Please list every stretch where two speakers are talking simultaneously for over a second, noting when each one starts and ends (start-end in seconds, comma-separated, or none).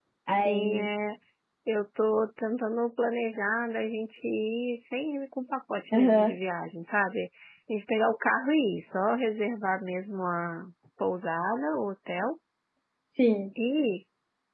none